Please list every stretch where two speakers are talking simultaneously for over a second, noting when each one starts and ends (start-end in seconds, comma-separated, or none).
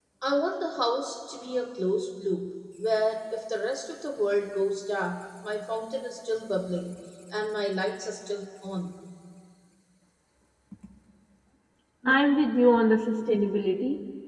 none